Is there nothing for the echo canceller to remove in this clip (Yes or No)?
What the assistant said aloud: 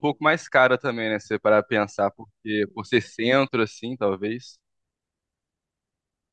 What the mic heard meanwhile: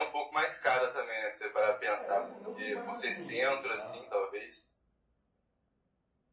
No